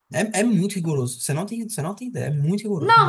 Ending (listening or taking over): taking over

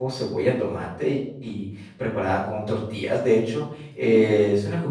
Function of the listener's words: listening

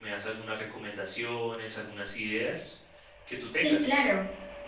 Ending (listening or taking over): taking over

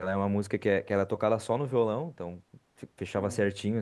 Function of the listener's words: listening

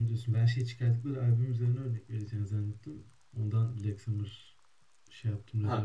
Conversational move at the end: taking over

